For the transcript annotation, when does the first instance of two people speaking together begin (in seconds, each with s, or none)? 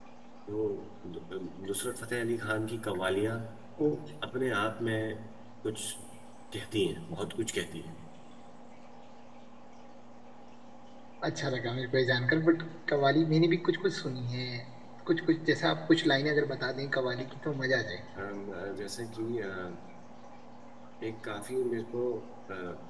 none